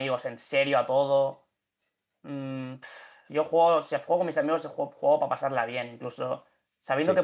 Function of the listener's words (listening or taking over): listening